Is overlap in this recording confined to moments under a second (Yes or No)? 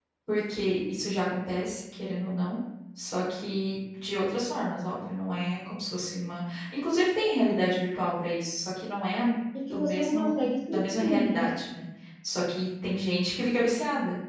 No